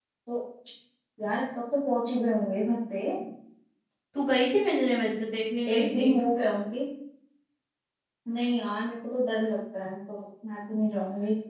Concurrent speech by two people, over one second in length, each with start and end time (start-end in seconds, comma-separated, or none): none